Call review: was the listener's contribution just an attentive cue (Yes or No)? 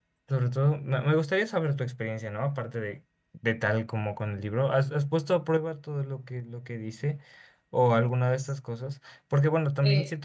Yes